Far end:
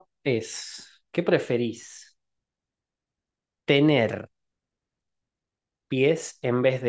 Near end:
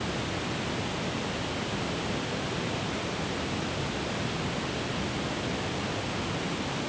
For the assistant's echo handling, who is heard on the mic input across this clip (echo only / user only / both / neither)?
neither